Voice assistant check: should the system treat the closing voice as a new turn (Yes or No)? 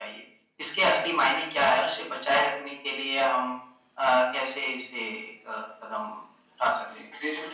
Yes